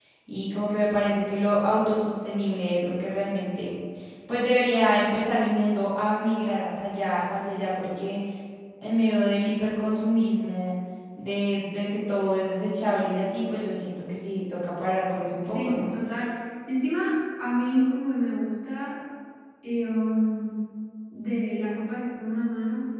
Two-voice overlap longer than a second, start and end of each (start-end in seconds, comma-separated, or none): none